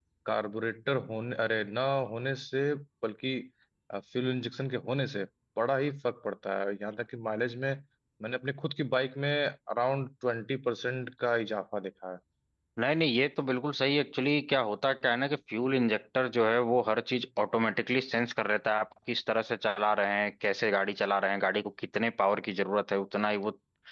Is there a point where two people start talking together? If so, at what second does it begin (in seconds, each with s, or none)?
none